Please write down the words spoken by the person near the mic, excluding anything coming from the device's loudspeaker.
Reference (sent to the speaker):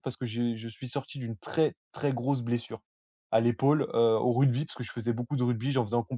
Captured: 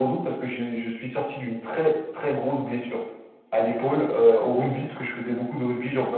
none

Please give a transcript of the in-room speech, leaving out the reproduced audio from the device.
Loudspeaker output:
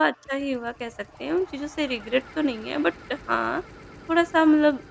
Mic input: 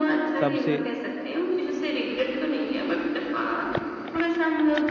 तब से?

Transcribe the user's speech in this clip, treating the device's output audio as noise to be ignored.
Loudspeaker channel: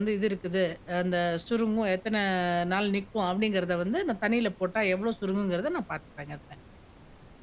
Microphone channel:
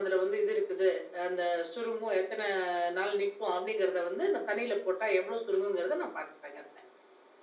none

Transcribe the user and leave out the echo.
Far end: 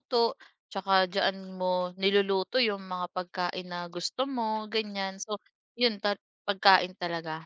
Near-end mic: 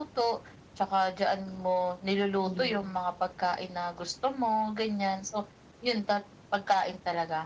ayun.

